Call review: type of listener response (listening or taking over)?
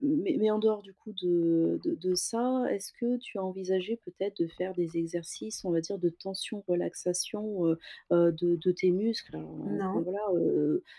listening